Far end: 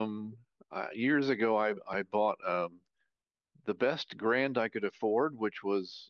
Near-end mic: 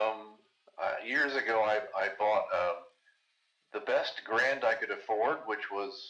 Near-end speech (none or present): none